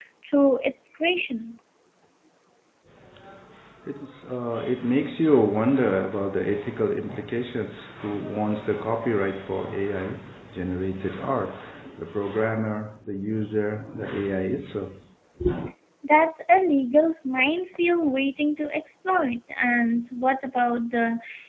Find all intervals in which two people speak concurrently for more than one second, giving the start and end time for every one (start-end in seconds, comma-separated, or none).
none